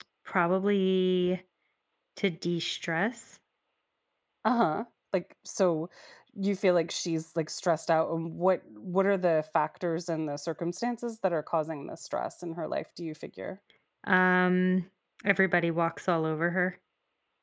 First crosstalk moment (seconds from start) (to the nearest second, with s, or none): none